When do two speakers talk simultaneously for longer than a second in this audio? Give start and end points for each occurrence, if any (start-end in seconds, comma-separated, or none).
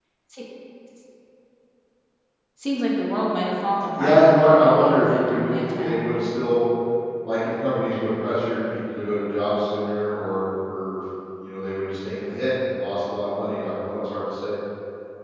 4.0-6.0